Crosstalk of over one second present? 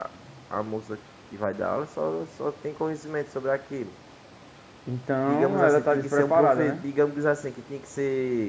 Yes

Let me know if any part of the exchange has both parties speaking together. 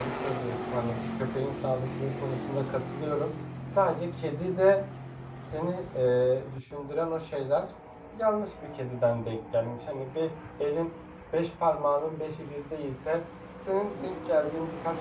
No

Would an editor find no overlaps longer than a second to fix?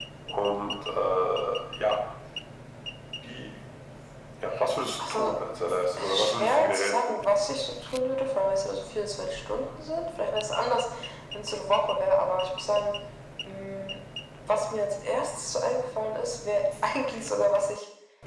No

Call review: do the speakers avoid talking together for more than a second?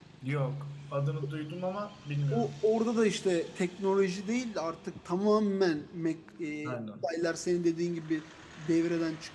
Yes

